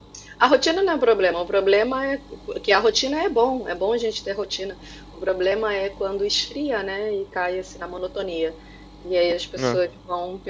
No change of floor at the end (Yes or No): Yes